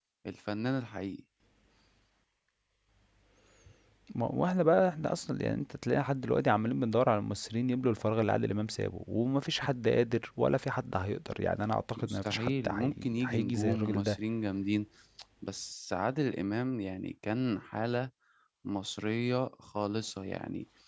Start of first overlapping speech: 12.0 s

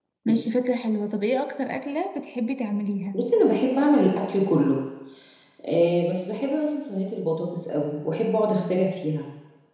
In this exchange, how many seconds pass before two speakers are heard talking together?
none

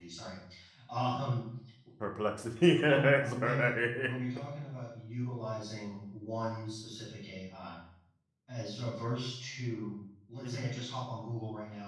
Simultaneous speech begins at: 2.9 s

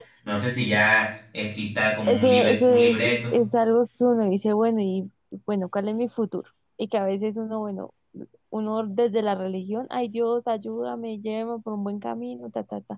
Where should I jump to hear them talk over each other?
2.1 s

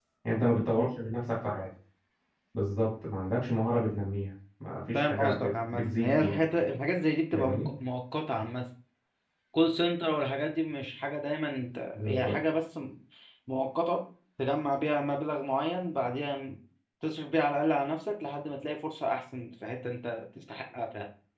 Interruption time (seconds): 4.9 s

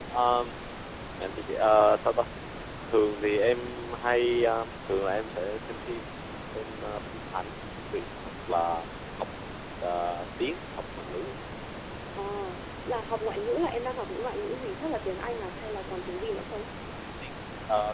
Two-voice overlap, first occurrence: none

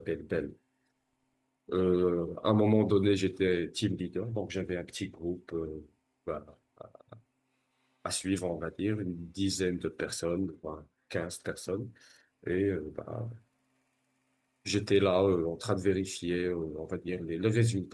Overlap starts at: none

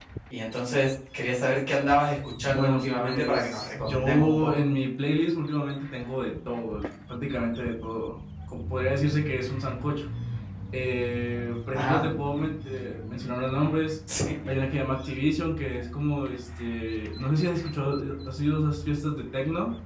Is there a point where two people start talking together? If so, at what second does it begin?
2.4 s

